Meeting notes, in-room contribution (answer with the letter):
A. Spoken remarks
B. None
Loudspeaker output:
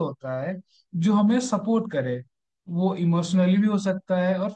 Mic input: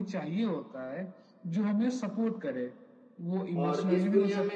A